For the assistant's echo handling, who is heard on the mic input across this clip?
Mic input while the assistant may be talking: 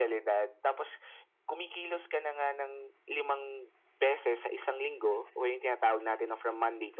echo only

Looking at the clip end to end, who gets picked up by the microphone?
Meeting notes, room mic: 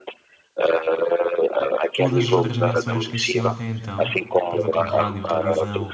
both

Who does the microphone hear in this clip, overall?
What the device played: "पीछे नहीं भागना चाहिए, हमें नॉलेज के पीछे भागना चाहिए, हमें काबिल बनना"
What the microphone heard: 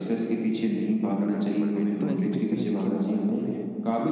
both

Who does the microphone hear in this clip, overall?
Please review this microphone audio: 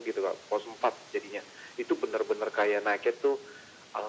echo only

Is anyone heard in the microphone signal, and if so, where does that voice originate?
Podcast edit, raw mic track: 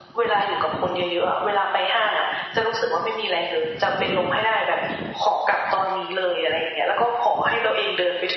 echo only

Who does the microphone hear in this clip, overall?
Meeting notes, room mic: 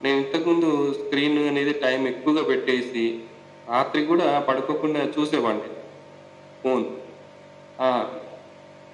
echo only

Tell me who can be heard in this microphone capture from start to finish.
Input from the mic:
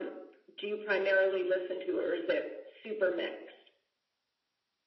echo only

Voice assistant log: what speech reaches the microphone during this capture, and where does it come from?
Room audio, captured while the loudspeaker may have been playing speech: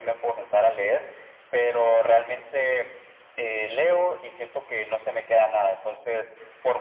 echo only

